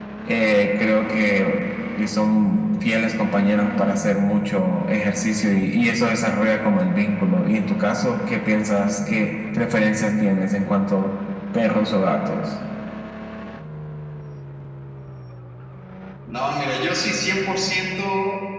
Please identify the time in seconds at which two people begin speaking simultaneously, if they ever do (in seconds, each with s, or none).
none